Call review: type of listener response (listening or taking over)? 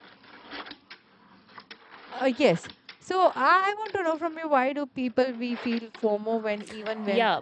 taking over